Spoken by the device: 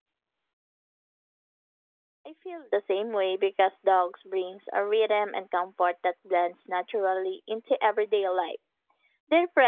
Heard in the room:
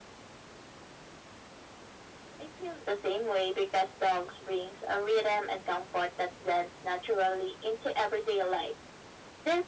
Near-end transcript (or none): none